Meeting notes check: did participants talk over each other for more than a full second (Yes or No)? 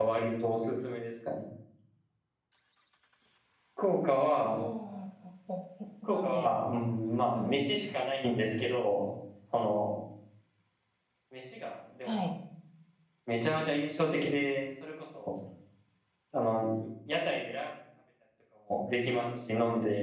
No